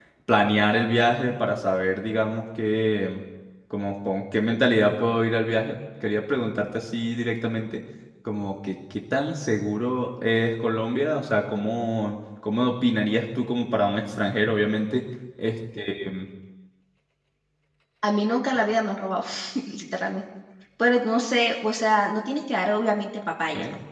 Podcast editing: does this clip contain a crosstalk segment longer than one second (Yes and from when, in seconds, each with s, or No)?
No